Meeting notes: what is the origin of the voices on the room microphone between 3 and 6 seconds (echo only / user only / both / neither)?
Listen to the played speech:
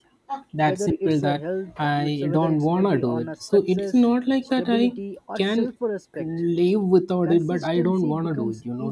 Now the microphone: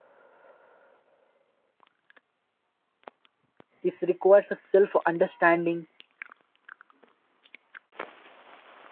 user only